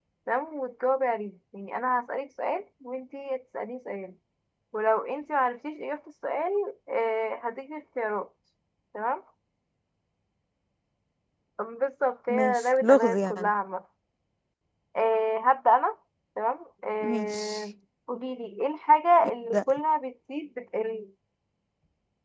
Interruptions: present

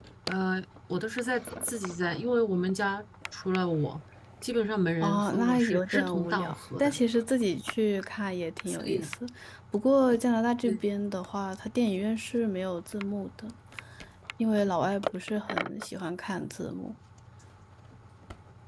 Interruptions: present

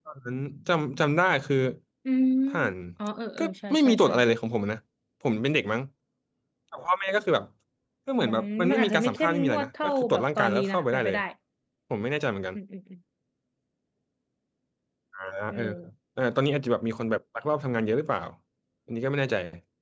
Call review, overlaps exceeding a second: present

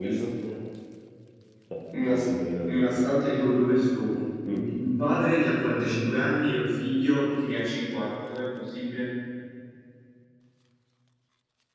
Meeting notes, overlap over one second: none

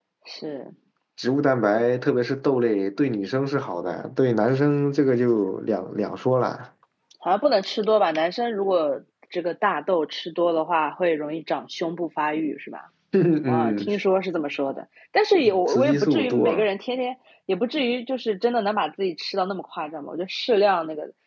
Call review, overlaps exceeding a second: present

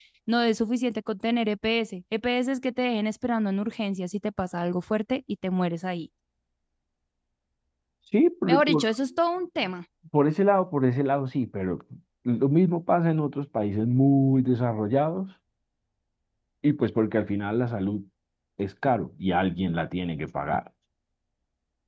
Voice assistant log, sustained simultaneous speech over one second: none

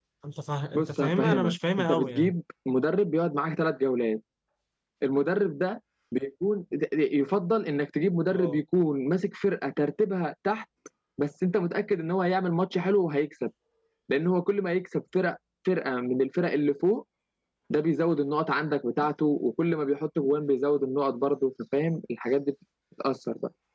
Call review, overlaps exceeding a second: present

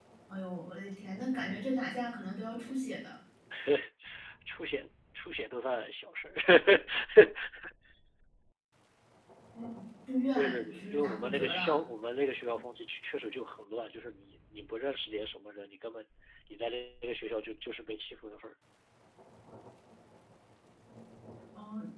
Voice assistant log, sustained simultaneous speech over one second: present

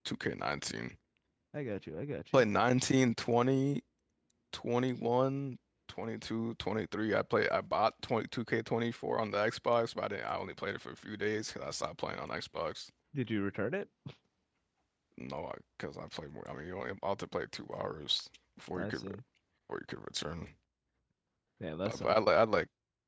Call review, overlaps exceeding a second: none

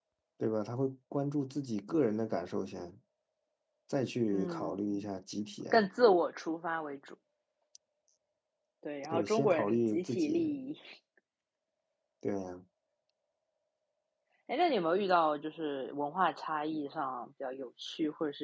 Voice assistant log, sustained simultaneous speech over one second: present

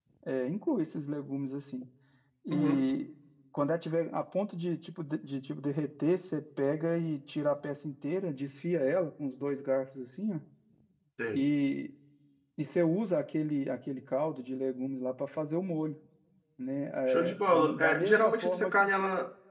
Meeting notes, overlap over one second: present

